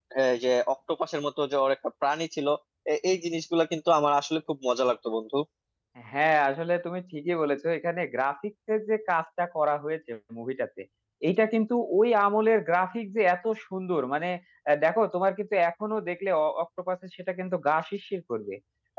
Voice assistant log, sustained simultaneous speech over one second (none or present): none